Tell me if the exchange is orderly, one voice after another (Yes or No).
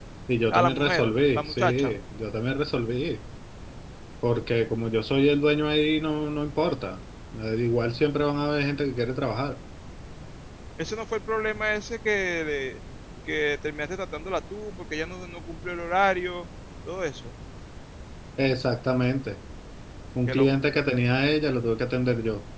No